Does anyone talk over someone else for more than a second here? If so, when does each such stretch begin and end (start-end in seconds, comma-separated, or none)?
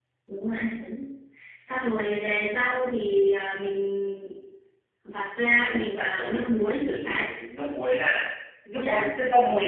5.6-7.3